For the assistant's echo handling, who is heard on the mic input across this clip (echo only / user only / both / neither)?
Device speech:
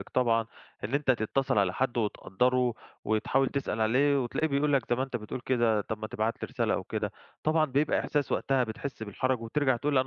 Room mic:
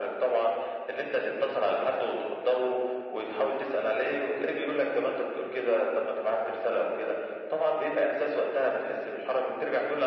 echo only